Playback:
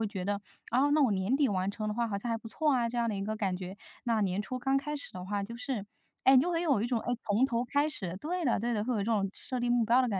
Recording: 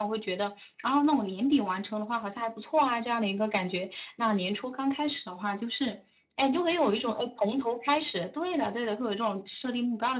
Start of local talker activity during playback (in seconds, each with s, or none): none